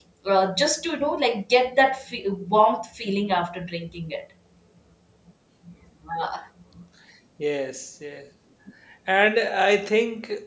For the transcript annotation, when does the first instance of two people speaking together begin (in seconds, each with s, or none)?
none